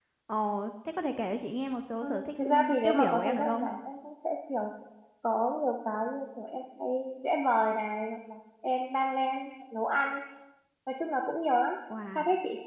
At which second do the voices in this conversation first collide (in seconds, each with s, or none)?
2.0 s